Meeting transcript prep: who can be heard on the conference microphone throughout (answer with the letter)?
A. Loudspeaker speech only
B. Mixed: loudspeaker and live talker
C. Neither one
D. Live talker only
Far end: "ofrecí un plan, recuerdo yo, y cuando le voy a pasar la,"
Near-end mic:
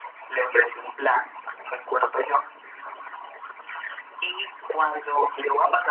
A